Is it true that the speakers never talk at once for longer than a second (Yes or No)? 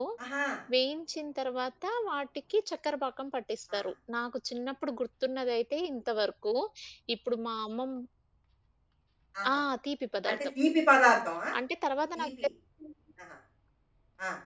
Yes